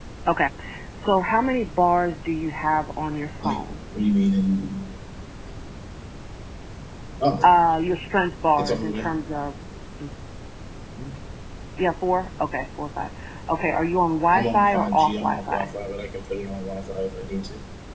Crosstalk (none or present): present